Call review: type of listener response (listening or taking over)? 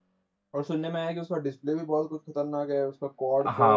taking over